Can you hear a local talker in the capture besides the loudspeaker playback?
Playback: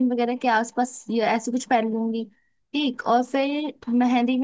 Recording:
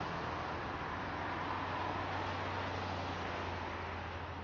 No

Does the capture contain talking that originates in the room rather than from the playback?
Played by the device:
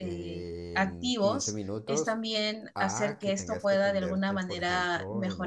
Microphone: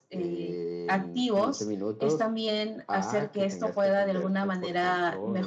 No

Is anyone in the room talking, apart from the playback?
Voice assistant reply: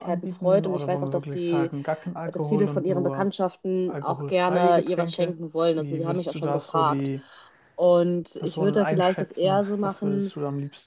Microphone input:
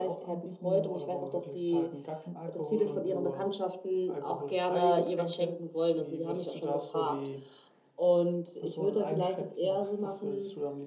No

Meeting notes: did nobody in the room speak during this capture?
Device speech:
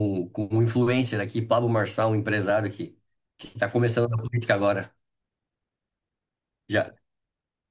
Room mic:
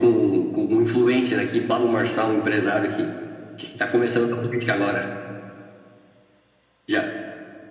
Yes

